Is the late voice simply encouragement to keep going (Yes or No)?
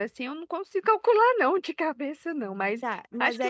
No